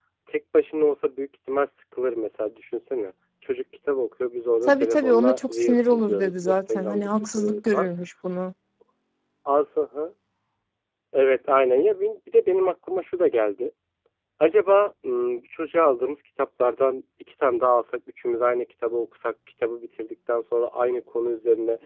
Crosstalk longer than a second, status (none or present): present